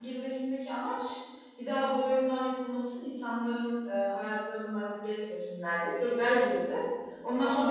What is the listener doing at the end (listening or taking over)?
listening